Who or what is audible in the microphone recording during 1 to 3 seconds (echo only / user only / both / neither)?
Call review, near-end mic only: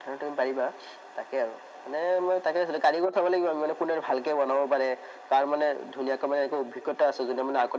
echo only